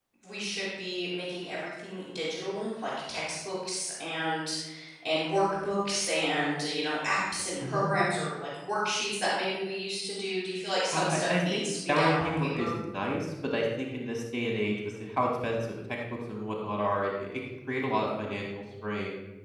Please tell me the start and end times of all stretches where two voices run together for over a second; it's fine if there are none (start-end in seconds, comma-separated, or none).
10.9-12.7